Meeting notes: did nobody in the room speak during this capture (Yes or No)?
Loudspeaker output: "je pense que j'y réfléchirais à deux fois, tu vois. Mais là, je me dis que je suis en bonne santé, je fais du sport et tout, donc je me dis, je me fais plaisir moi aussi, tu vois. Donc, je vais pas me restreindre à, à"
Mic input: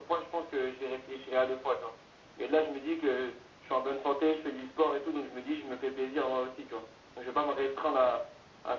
Yes